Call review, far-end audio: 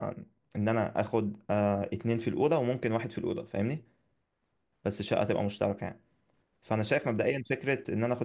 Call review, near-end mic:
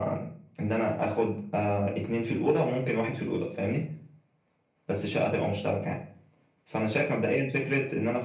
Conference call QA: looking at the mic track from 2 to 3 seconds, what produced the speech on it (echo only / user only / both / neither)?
echo only